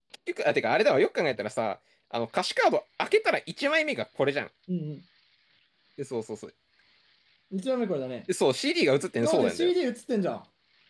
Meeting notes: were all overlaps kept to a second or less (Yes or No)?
Yes